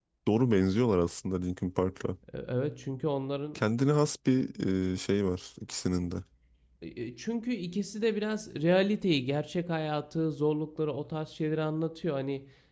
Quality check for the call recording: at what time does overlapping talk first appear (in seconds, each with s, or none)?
none